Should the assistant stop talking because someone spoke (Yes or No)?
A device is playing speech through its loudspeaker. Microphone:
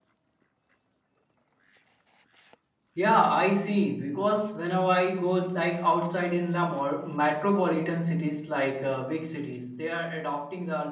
Yes